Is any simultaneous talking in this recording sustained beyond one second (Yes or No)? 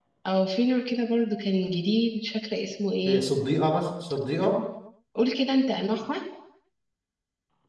No